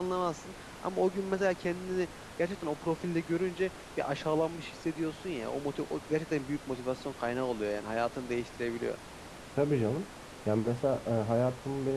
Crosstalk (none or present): none